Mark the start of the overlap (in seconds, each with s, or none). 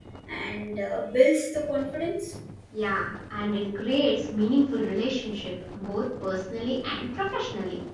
none